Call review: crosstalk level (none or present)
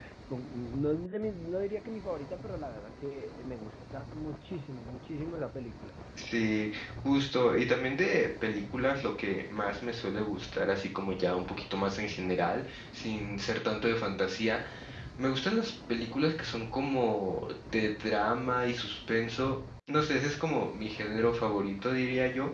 none